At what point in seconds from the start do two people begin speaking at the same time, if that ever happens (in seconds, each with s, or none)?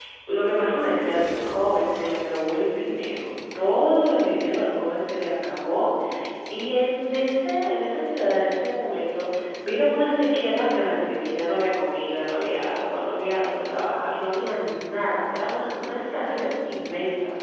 none